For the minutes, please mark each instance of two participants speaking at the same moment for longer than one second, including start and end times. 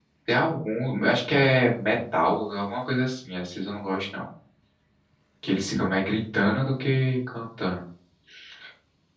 none

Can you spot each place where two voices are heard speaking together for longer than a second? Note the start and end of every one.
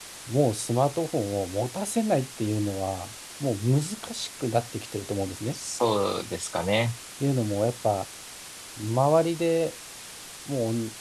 none

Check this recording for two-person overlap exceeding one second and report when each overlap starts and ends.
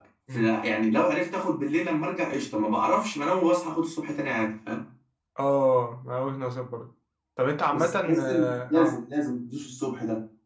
7.7-9.0

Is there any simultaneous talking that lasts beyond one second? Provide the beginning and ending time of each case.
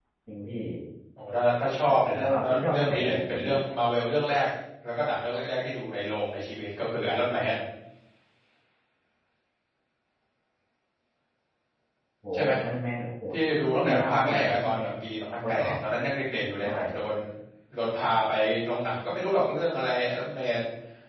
2.1-3.5, 13.6-14.9

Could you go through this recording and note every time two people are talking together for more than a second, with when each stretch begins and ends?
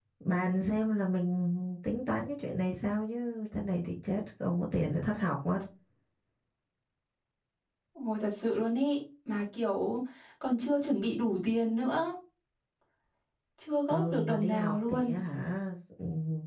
13.9-15.1

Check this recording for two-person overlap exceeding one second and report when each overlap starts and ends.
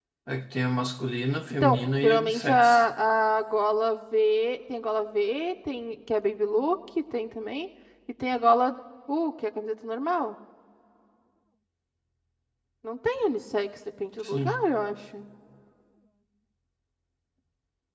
1.5-2.8

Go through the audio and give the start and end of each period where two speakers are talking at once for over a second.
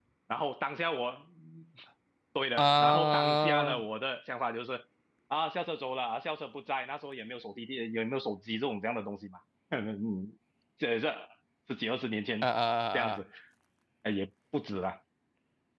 2.6-3.8

